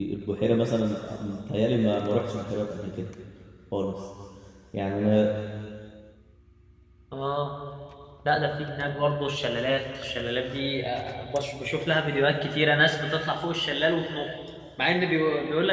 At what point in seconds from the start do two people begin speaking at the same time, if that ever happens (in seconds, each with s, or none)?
none